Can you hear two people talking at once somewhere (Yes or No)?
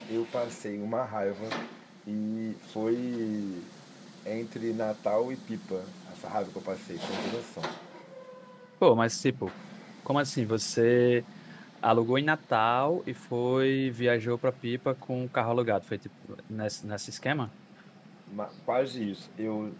No